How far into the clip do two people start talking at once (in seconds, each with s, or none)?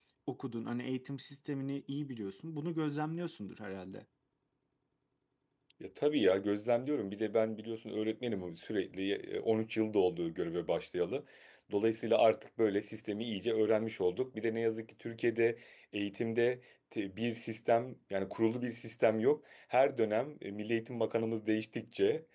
none